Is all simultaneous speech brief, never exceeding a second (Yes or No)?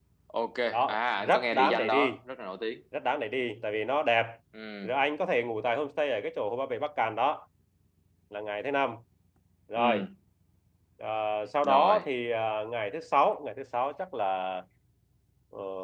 No